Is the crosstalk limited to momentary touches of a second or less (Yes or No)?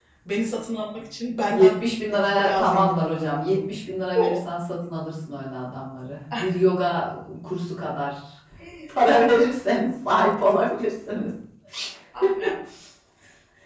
No